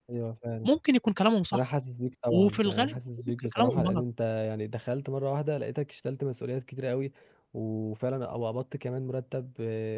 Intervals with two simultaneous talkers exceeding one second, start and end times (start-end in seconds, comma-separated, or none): 2.3-4.0